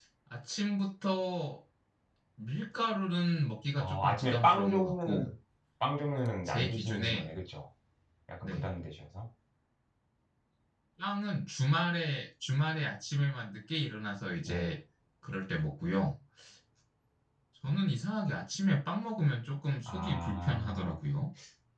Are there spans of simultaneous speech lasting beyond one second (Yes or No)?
Yes